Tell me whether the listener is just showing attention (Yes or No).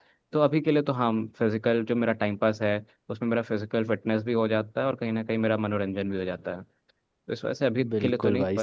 No